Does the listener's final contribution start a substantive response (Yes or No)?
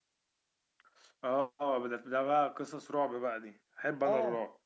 Yes